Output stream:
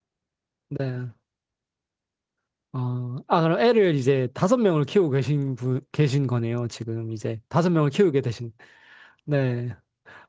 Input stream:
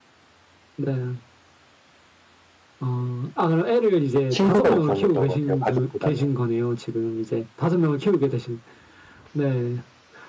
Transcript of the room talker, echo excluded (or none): 친구가 우선이었던 것 같아요. 가족보다는.